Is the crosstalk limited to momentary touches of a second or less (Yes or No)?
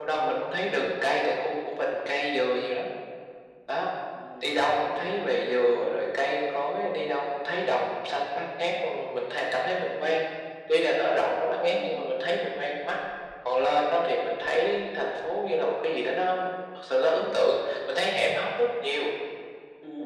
Yes